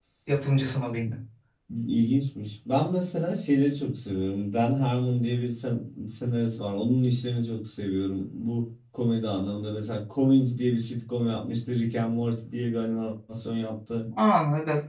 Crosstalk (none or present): none